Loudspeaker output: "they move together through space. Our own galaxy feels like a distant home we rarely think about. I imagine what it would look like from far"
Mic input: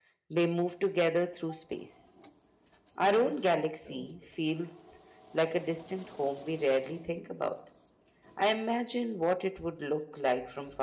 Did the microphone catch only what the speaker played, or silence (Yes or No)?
No